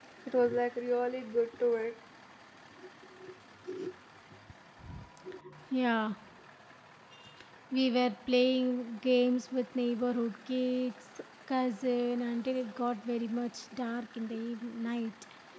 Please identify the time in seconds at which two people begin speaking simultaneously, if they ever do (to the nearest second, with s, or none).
none